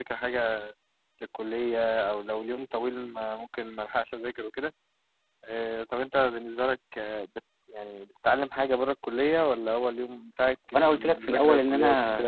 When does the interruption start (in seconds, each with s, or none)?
10.7 s